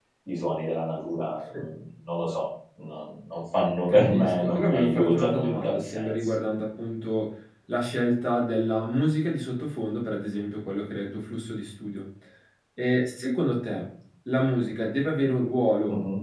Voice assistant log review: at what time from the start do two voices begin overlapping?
3.9 s

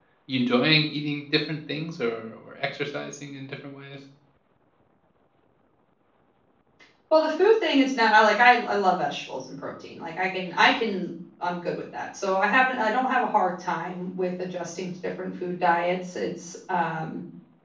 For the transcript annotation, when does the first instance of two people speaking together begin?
none

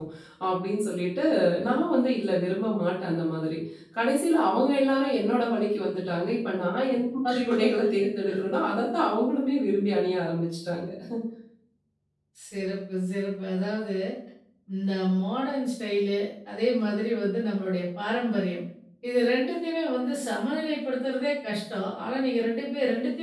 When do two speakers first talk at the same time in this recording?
none

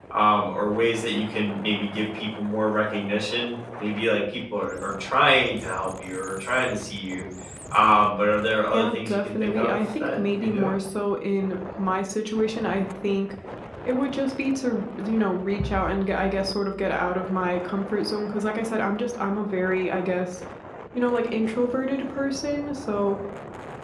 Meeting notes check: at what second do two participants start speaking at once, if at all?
8.7 s

